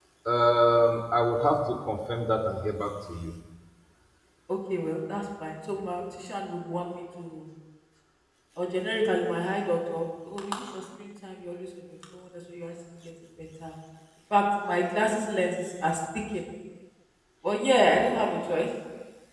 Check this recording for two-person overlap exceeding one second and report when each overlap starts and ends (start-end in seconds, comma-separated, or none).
none